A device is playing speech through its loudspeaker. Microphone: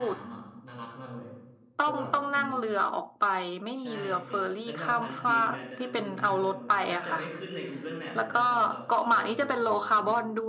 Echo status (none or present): present